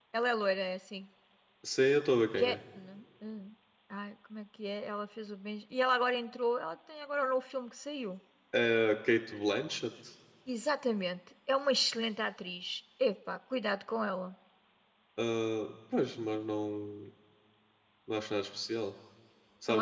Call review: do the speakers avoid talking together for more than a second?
Yes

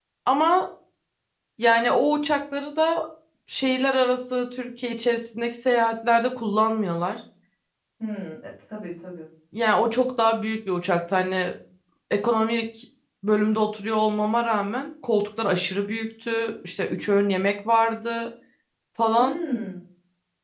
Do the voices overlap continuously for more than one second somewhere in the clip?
No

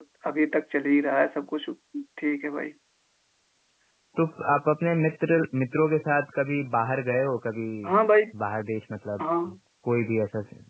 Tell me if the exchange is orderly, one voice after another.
Yes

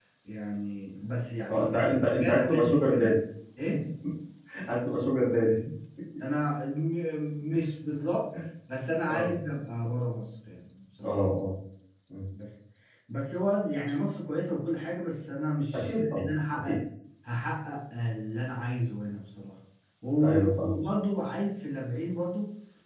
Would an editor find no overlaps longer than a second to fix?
No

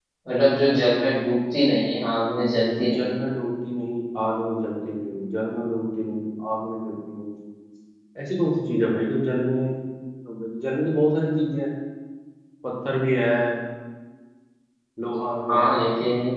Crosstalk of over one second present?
No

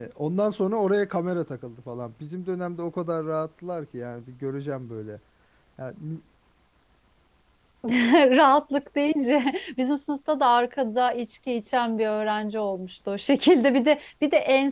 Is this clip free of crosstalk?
Yes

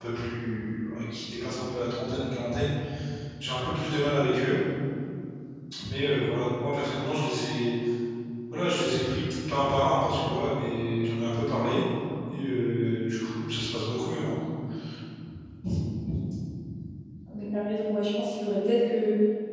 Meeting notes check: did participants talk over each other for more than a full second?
No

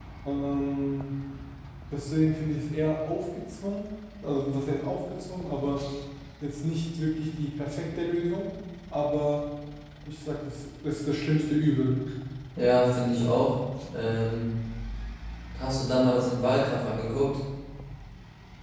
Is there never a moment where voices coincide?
Yes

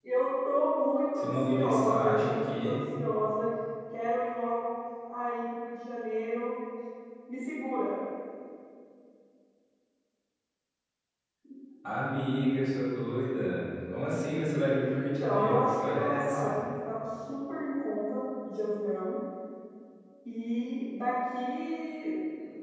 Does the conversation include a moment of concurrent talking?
Yes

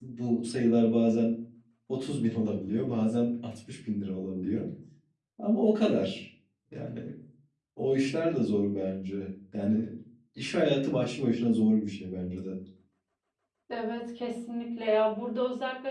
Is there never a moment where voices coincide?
Yes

